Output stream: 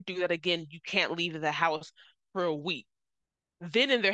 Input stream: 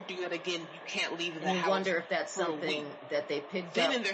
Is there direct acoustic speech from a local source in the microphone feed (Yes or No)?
Yes